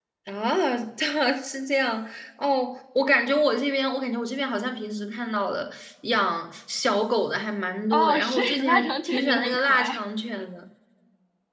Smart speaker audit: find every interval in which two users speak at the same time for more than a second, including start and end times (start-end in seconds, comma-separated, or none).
7.9-10.0